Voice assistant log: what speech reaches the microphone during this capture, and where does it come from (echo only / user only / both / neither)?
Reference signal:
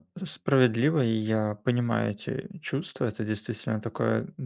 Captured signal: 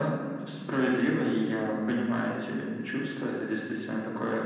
echo only